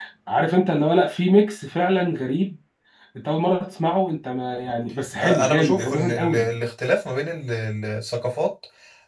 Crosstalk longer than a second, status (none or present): present